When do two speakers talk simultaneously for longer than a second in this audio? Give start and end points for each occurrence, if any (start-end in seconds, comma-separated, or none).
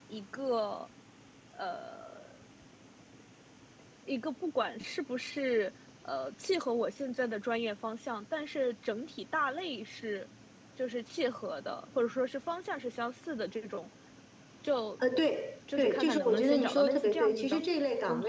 15.8-17.6